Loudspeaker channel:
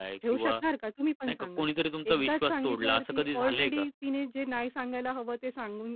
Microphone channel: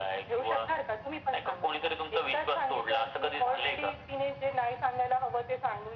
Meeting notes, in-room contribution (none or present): none